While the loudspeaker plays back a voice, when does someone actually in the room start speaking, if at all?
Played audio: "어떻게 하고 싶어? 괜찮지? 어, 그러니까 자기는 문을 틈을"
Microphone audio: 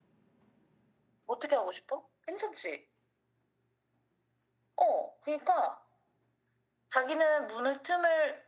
none

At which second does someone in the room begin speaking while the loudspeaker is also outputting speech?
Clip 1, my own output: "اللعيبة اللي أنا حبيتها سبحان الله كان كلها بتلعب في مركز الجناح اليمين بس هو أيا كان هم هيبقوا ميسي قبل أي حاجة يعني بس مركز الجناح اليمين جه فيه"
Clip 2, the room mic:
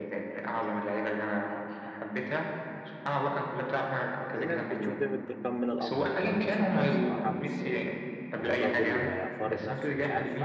4.3 s

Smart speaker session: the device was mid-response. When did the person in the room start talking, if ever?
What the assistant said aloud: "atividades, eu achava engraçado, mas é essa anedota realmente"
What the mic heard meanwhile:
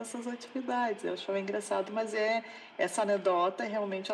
none

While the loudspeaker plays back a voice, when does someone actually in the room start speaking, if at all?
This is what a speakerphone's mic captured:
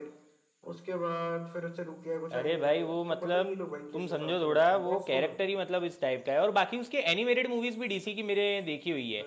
2.4 s

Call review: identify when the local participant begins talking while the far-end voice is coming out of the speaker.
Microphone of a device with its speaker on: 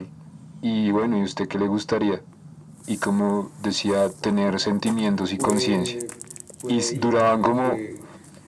5.3 s

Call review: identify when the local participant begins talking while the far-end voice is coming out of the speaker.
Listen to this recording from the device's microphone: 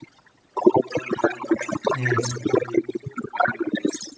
1.9 s

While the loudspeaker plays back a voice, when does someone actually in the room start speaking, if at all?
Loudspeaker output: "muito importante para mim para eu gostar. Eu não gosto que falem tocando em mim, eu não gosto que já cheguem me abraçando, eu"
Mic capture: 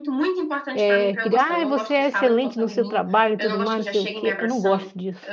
0.7 s

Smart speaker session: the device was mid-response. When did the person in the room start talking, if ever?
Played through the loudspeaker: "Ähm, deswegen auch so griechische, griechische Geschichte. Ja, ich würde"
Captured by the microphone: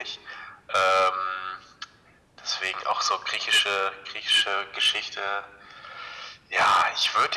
none

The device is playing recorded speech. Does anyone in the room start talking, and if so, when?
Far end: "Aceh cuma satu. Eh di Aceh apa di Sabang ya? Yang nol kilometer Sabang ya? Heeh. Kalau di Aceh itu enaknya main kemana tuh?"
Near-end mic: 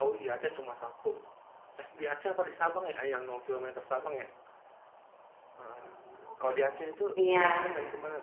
7.1 s

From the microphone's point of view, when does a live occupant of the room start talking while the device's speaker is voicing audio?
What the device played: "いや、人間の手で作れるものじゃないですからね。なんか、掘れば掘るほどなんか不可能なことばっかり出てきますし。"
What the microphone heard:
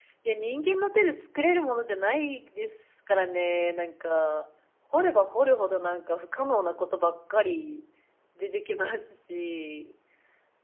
none

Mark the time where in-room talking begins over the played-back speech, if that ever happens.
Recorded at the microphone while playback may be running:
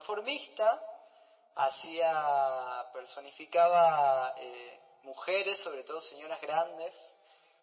none

